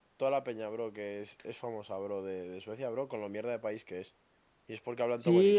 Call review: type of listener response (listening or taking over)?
taking over